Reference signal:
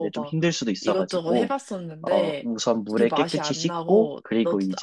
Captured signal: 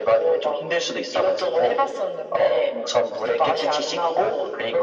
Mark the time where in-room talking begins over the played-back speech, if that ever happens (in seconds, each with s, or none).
none